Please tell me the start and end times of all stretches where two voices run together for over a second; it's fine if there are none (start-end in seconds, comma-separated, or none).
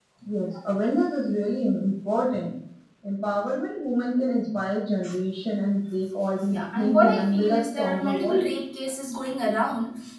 6.5-8.5